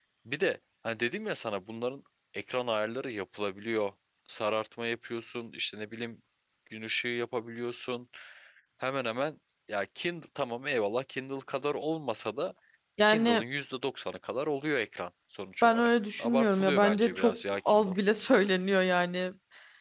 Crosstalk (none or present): present